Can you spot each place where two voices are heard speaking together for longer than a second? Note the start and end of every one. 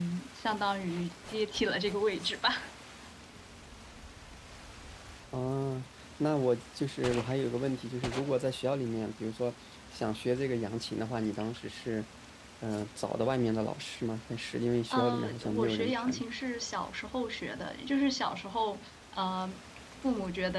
14.9-16.2

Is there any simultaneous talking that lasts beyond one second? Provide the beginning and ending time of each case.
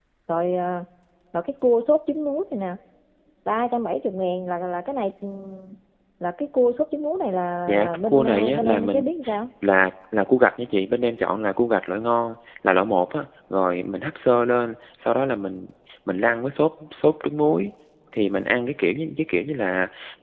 7.7-9.0

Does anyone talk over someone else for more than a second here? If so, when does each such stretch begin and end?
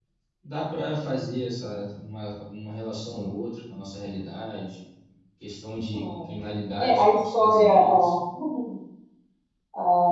6.8-8.1

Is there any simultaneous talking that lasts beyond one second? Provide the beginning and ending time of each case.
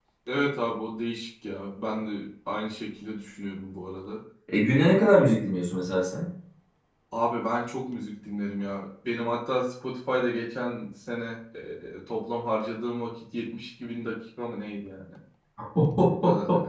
none

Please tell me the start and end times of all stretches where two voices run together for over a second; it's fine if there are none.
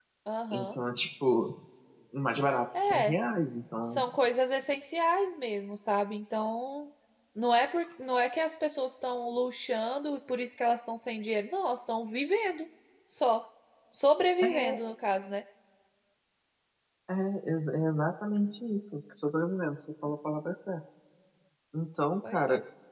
none

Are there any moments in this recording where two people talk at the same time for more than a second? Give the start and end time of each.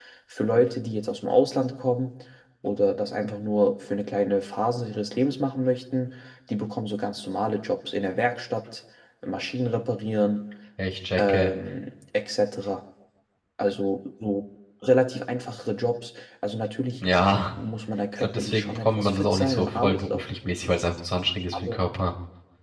18.2-20.2

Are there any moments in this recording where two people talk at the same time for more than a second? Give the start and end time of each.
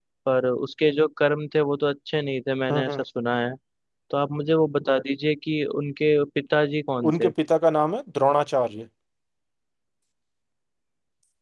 none

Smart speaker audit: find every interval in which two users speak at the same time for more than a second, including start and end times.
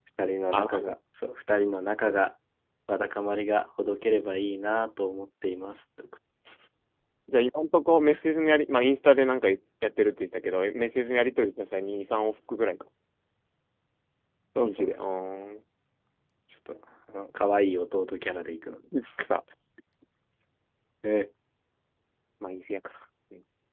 none

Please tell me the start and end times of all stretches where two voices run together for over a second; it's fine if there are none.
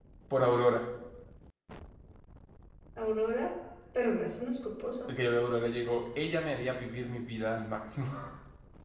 none

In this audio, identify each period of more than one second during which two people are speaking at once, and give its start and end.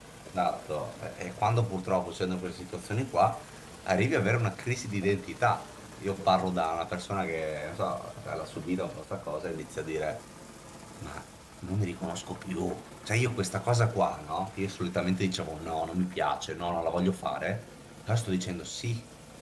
none

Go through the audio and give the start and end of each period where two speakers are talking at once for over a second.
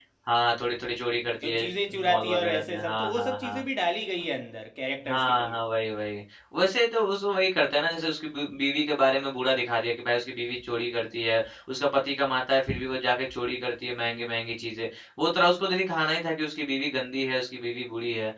2.0-3.6

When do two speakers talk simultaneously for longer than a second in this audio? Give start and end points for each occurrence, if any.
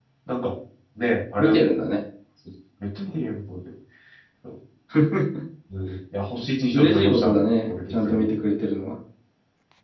6.7-8.2

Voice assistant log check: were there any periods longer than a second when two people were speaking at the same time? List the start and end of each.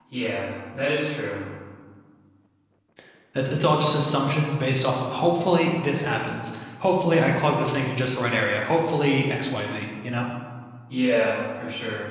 none

